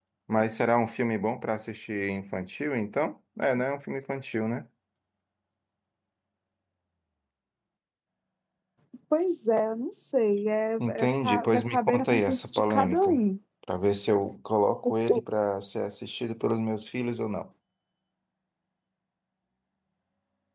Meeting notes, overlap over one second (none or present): present